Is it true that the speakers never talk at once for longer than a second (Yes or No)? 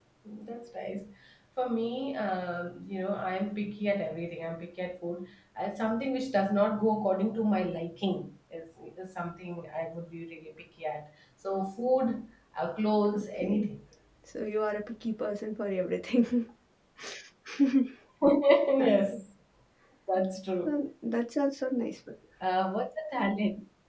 Yes